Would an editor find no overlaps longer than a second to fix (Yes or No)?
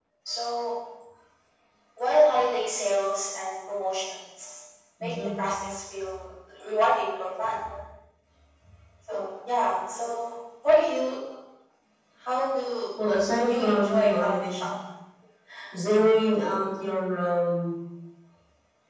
No